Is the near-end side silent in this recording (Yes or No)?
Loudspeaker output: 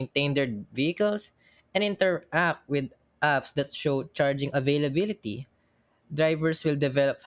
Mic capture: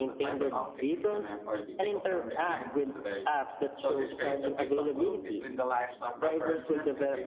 No